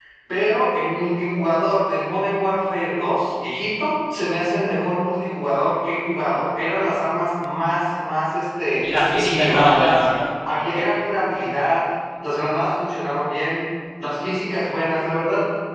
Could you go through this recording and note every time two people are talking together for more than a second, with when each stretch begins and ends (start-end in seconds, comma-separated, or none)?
8.8-10.1